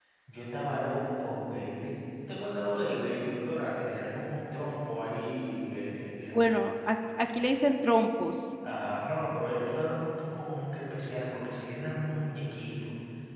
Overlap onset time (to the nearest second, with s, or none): none